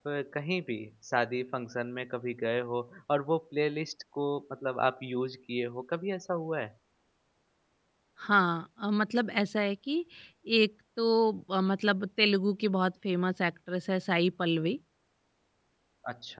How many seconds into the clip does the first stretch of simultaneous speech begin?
none

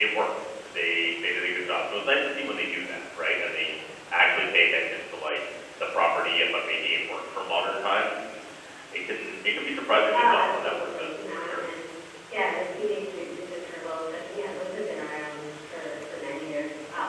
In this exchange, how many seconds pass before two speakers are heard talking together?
10.1 s

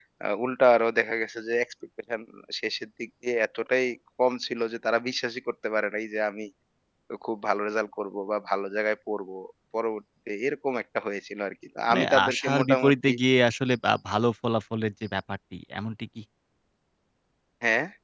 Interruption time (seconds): 11.9 s

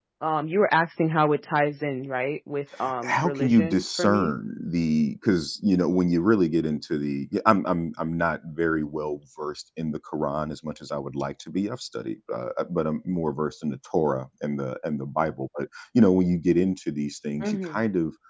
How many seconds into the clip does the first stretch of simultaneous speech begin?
3.0 s

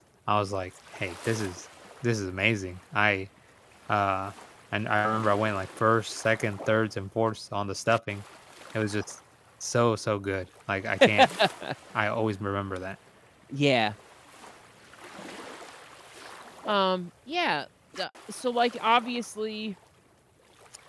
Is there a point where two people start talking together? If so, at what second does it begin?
none

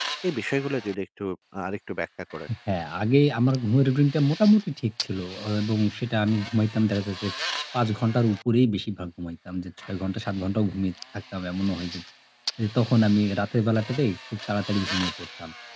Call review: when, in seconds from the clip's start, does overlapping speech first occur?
none

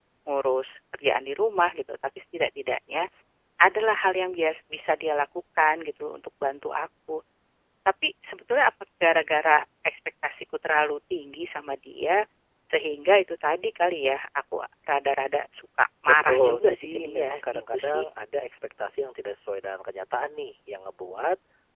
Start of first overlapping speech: 16.0 s

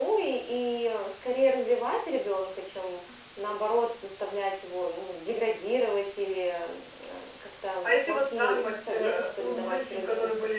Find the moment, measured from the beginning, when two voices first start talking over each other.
7.8 s

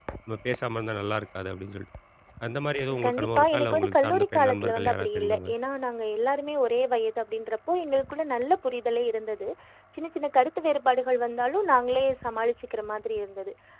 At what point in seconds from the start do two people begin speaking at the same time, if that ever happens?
3.0 s

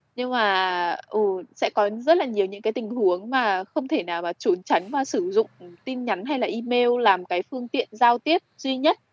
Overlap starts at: none

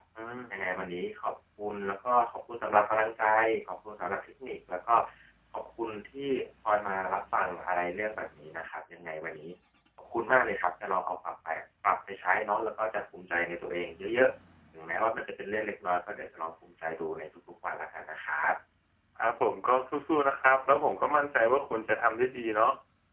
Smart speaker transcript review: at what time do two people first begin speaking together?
none

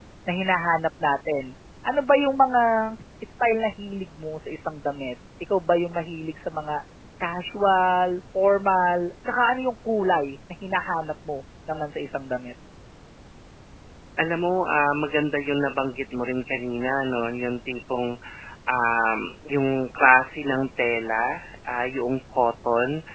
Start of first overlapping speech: none

